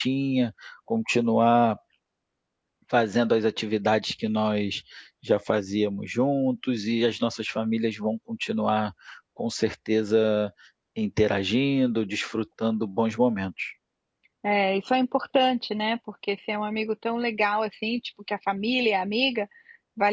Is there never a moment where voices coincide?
Yes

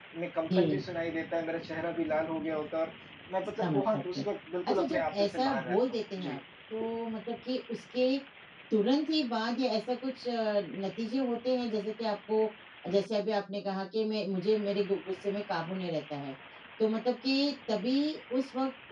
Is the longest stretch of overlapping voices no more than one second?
No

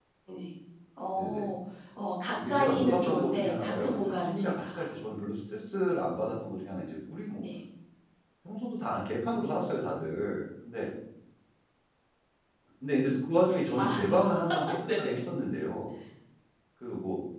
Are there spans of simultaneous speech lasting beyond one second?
Yes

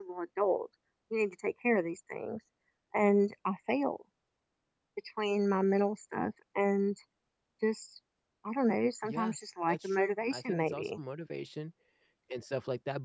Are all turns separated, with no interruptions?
No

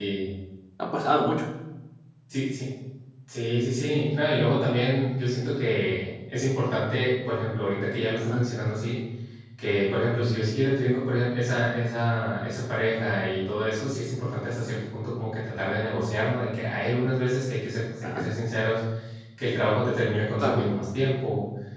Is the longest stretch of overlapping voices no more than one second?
Yes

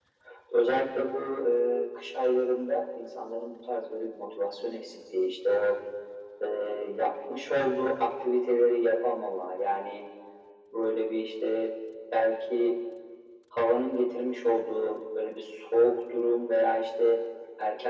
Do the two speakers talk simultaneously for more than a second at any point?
No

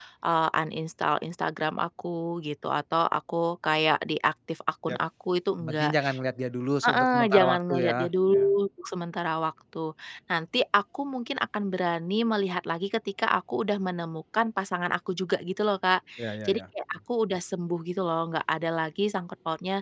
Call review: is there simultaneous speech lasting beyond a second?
Yes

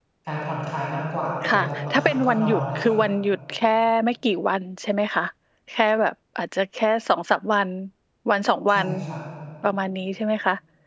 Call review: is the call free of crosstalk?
No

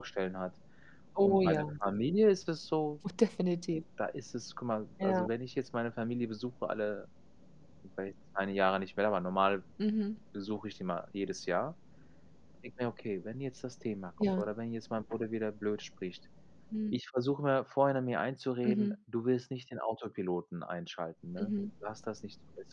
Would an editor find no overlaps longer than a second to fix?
Yes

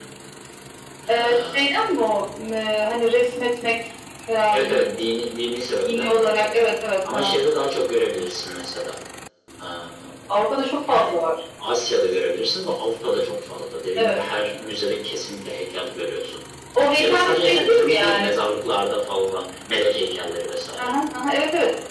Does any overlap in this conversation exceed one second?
Yes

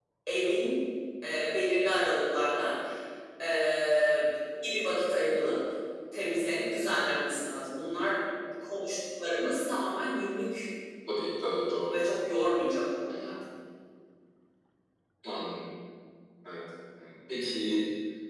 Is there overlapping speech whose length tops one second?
No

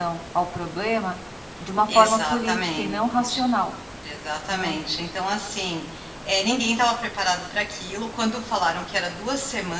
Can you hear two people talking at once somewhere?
Yes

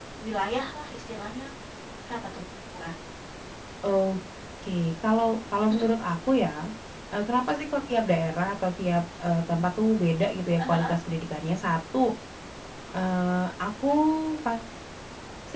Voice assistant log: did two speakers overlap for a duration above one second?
No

